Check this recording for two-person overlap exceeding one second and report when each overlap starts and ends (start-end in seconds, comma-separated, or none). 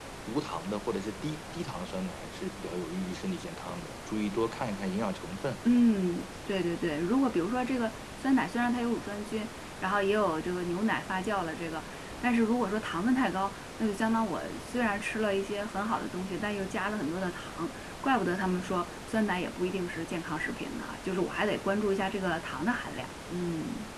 none